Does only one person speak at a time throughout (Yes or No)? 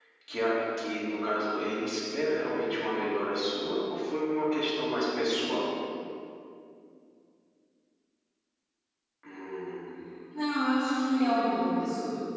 Yes